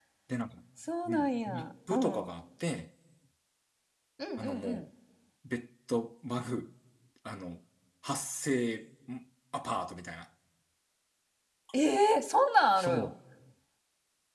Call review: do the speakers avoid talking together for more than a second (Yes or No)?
No